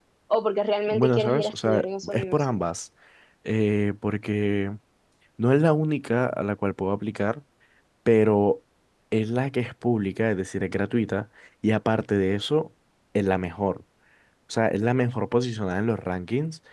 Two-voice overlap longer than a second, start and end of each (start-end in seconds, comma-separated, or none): 0.9-2.6